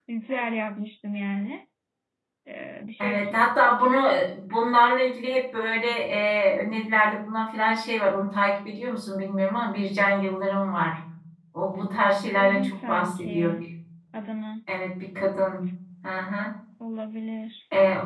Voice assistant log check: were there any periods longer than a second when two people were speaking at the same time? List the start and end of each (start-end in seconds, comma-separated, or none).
12.3-13.6